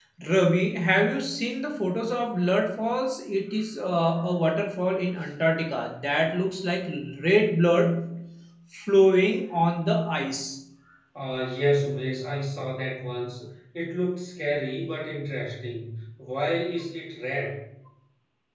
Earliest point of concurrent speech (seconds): none

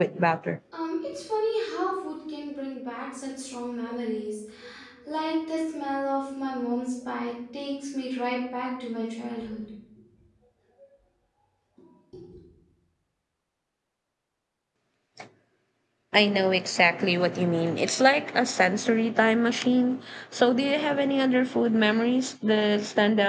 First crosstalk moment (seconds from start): none

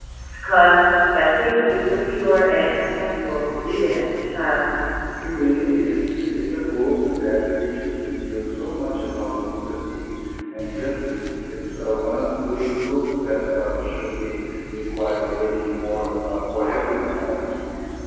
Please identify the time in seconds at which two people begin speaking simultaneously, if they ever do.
none

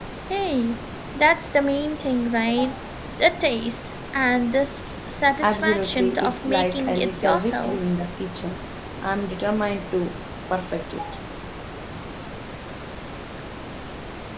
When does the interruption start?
5.4 s

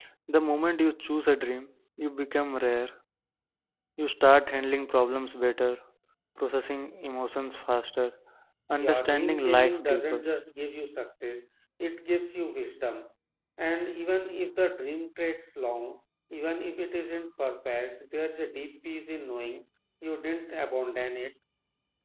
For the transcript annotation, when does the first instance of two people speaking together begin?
8.8 s

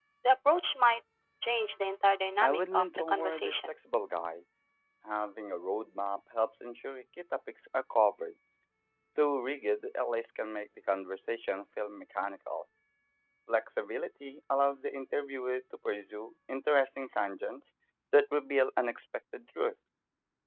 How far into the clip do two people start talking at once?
2.4 s

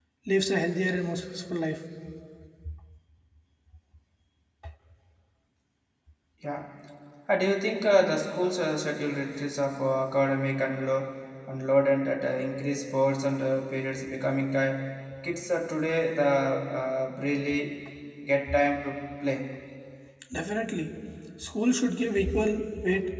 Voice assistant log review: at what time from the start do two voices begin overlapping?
none

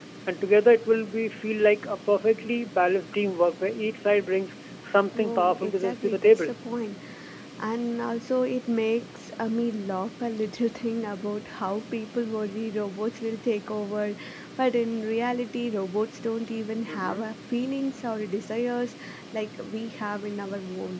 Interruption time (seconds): 5.1 s

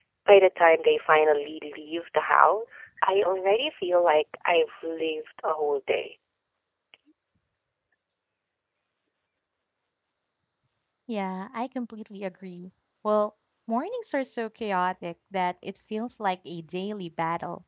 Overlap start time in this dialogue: none

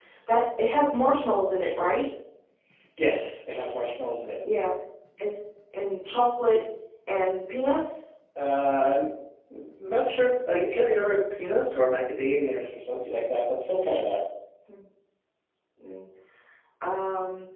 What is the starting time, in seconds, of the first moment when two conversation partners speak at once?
none

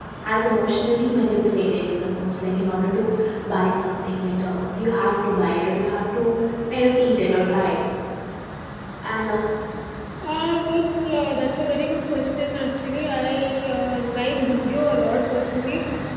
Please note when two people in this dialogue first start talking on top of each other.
none

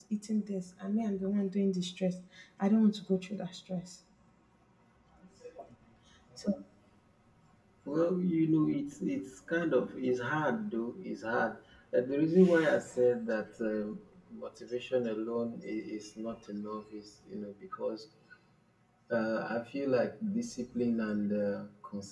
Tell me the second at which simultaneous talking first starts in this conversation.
none

